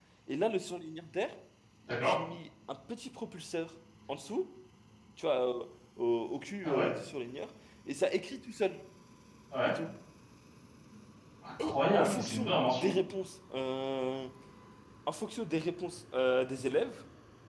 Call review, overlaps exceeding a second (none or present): present